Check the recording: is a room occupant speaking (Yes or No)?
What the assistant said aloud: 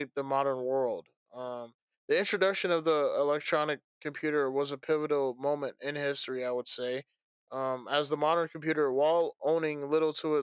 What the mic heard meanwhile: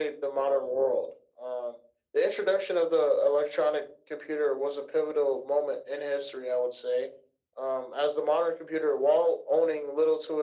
No